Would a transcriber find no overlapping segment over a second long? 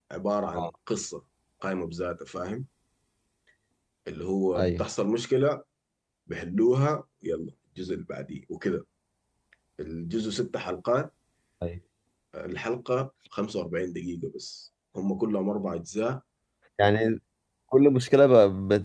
Yes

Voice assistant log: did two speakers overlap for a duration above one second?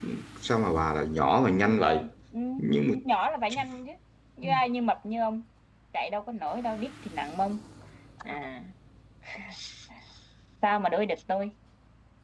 No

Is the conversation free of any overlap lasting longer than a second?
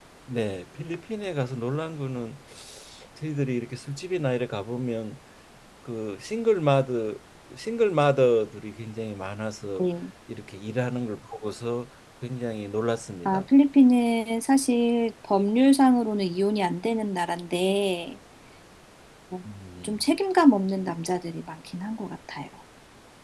Yes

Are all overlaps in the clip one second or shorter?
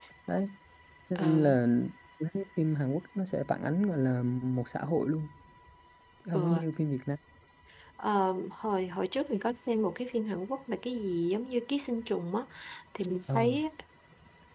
Yes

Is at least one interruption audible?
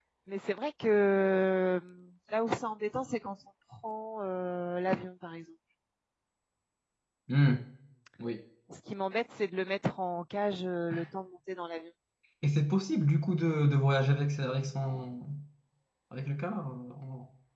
No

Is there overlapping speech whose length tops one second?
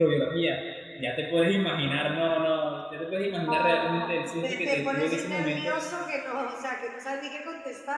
Yes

